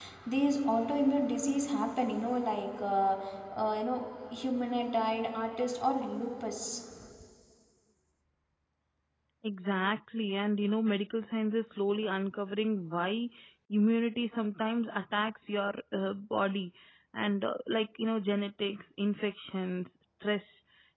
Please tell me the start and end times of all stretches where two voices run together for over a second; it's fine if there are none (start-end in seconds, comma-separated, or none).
none